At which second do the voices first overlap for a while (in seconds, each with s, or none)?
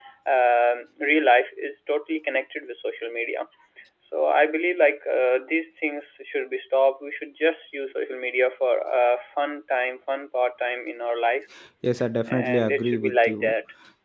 12.3 s